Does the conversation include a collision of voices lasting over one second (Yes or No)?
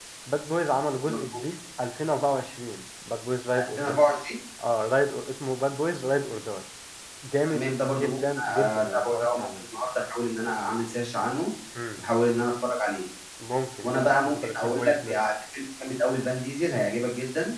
Yes